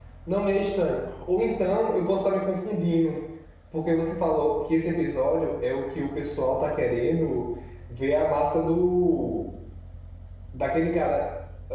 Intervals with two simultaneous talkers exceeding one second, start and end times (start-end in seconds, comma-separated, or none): none